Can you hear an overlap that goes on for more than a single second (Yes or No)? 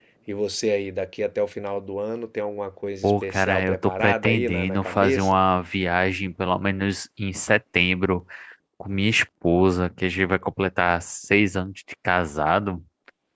Yes